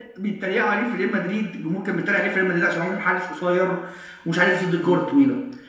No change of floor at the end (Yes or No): Yes